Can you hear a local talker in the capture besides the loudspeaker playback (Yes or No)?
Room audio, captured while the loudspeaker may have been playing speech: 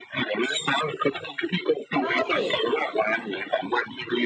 Yes